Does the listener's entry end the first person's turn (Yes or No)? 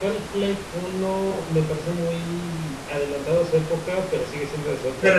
Yes